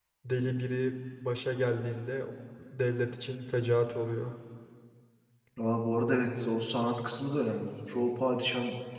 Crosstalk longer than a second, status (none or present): none